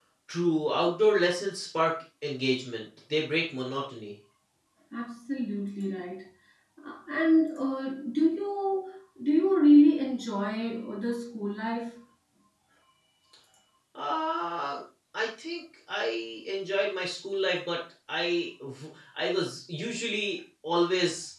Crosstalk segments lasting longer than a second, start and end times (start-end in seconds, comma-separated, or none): none